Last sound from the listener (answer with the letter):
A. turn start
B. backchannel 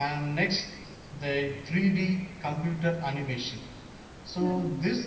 B